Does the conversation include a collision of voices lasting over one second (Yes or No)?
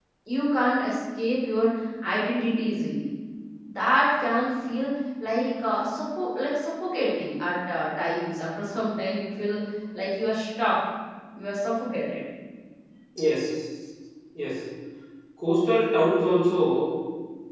No